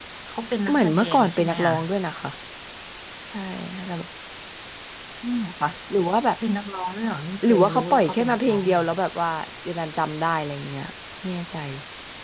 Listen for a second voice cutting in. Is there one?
Yes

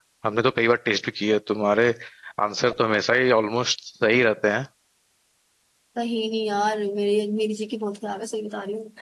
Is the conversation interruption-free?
Yes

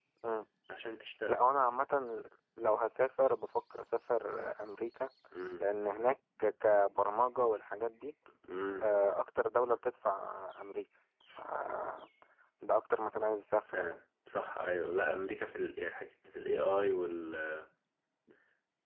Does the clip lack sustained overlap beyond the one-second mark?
Yes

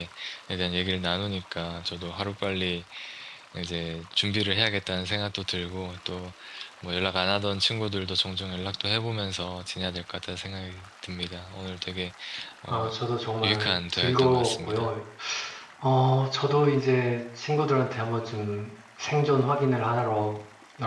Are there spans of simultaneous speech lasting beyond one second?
Yes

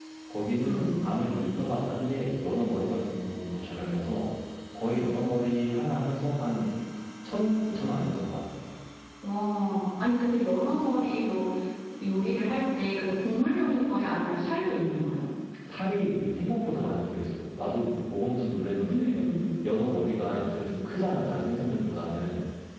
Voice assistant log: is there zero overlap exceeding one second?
Yes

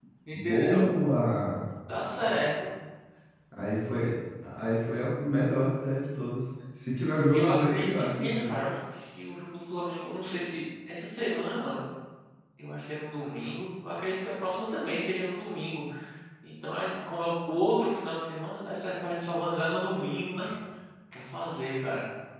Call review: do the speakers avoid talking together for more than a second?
No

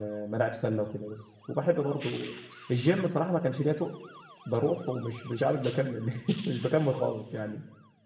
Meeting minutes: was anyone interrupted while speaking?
No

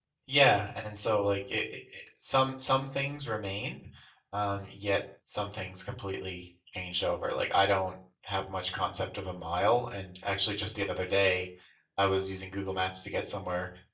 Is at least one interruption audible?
No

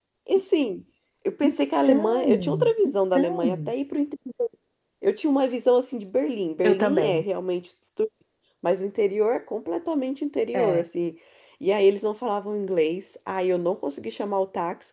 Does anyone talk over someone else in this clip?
Yes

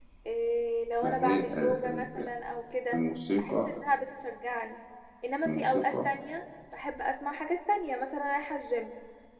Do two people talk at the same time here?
Yes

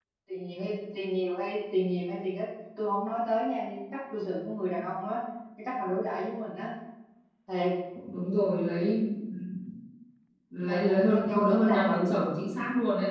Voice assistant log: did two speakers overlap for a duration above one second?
Yes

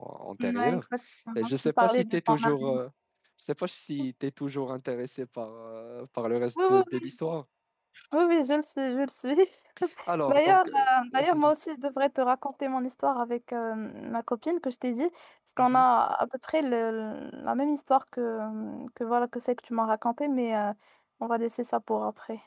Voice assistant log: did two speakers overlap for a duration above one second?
Yes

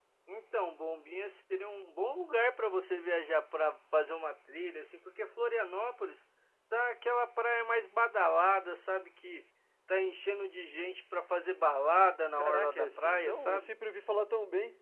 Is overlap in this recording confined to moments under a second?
No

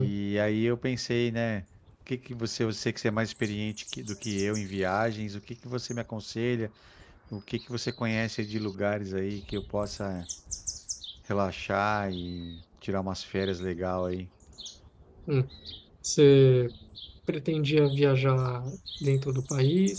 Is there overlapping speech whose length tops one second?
No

